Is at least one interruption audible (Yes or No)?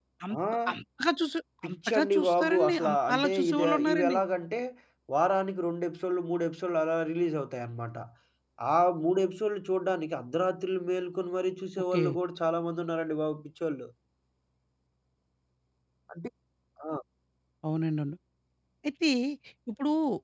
Yes